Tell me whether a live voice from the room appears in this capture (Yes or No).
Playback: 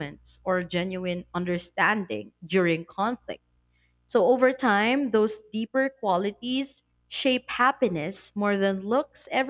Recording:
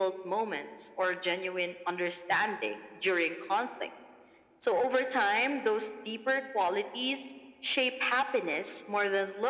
No